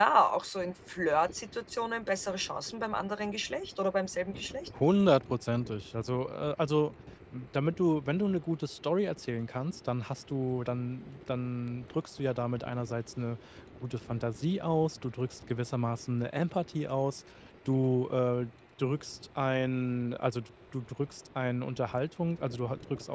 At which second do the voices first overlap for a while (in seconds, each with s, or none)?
none